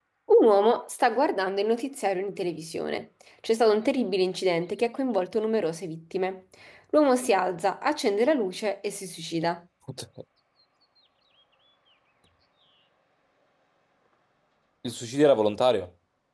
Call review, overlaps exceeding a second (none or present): none